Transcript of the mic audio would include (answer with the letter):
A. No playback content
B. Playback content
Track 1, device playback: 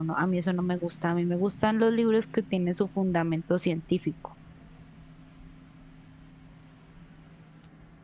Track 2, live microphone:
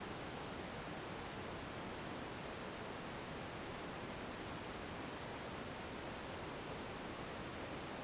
A